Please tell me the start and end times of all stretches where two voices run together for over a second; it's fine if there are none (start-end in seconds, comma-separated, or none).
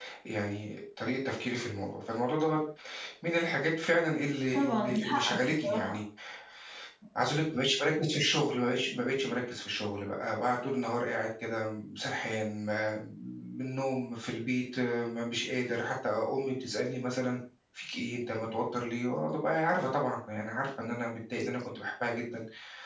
4.5-6.0